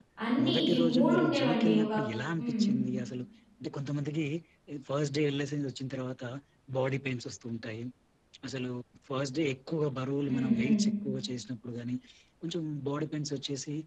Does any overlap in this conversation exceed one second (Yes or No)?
Yes